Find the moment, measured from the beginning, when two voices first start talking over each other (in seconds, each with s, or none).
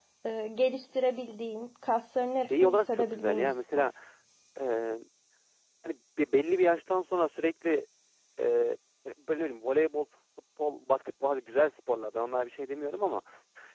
2.4 s